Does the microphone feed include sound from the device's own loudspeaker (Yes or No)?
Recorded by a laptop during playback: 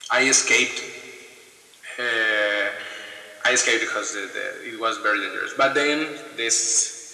Yes